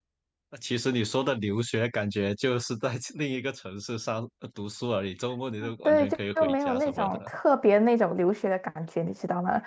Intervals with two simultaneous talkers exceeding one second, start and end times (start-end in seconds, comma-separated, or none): 5.8-7.2